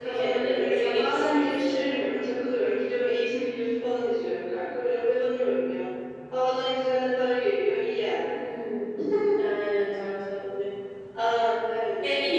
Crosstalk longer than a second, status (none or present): present